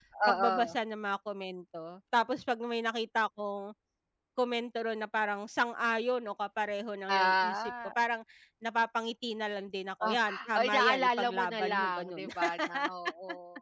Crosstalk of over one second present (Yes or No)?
Yes